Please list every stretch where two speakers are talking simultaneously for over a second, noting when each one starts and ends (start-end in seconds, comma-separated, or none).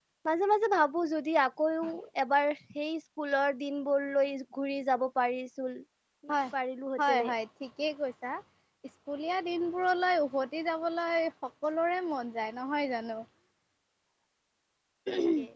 none